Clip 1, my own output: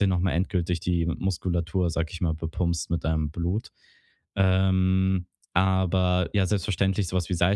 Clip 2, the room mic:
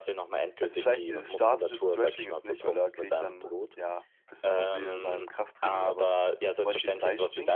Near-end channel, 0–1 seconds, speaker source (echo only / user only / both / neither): both